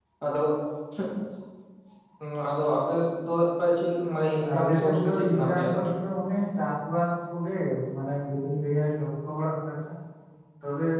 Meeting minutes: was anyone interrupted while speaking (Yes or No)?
Yes